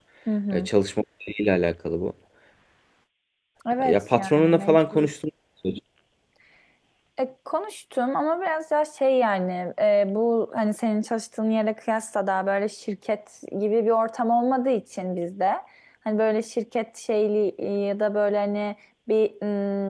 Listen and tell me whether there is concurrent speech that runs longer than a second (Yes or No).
Yes